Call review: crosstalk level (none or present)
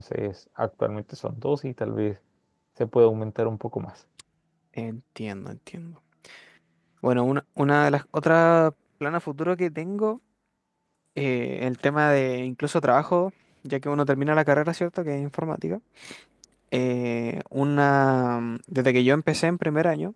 none